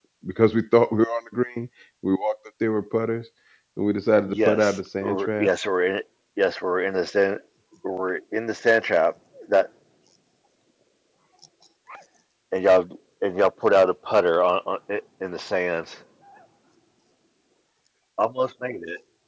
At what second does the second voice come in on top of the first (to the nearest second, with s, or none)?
4 s